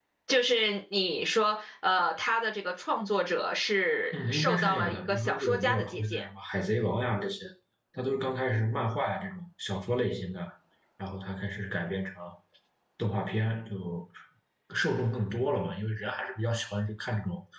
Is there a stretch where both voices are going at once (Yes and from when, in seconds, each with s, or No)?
Yes, from 4.1 s